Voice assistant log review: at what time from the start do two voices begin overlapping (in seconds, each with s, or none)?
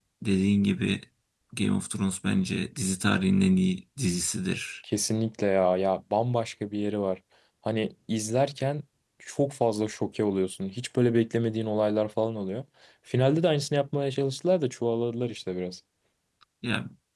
none